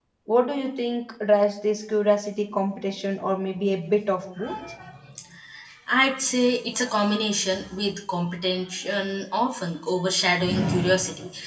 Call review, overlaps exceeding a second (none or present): none